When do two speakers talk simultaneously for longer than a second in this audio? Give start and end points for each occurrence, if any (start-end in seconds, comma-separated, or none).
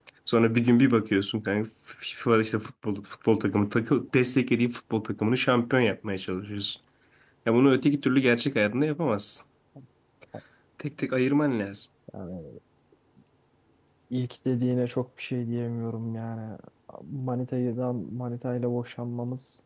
none